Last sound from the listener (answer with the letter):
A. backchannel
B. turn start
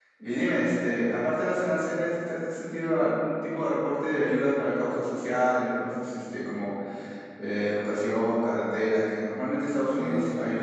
B